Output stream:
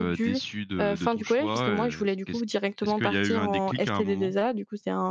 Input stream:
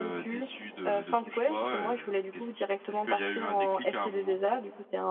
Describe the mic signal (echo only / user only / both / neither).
echo only